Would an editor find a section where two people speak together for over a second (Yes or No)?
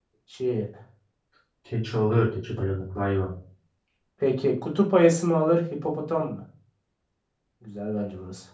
No